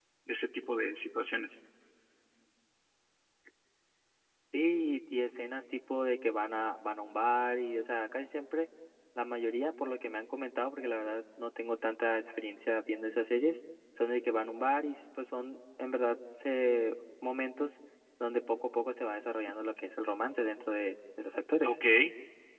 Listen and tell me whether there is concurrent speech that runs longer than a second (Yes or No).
No